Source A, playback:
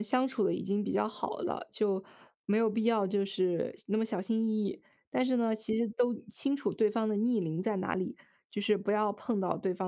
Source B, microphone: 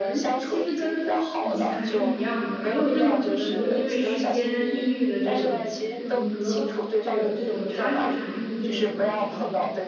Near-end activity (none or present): present